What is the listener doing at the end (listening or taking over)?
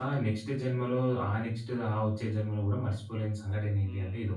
taking over